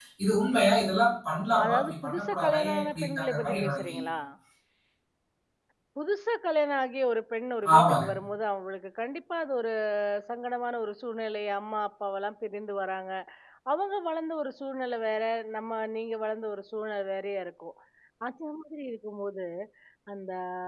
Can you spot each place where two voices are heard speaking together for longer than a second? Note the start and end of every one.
1.6-4.0

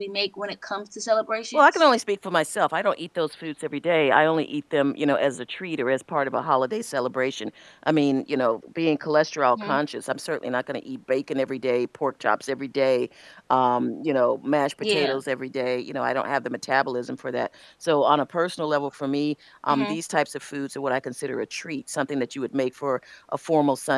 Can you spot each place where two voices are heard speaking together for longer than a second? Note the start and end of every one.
none

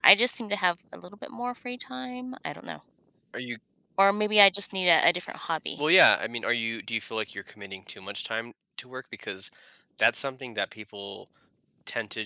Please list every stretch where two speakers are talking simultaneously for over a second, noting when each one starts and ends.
none

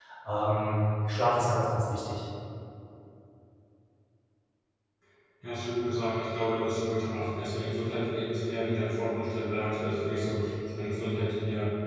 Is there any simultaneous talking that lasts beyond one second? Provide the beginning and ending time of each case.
none

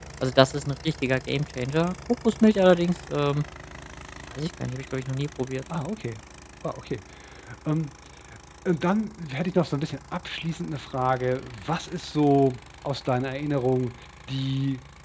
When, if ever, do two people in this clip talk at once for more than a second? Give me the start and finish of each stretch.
none

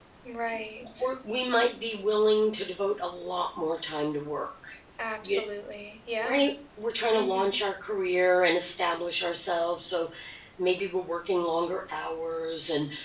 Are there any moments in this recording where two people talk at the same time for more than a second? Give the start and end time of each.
none

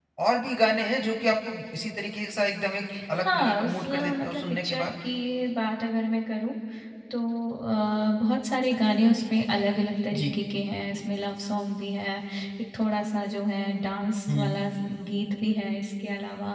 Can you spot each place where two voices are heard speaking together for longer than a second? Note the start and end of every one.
3.2-4.9

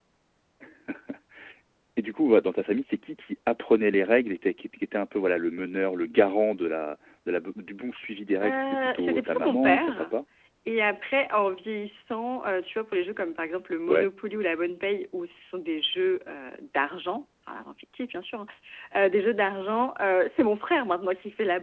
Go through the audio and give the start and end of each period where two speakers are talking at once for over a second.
8.4-10.1

